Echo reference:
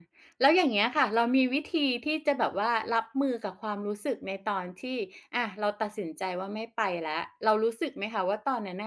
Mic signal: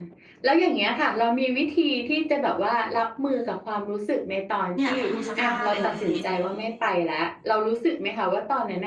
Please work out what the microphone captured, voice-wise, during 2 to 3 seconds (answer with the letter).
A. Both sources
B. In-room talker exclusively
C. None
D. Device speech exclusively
D